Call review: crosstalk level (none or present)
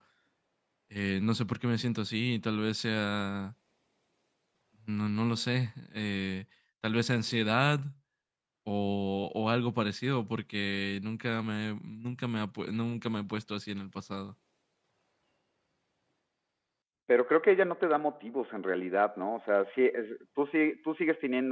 none